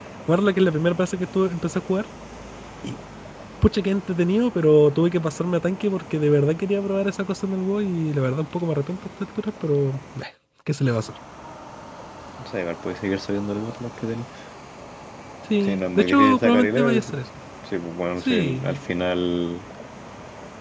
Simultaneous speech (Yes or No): Yes